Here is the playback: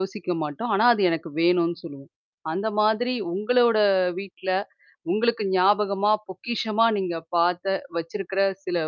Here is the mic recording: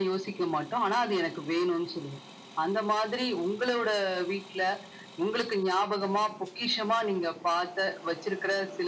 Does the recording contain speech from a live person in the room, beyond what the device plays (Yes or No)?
No